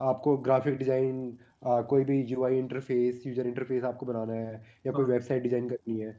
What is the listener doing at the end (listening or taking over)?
listening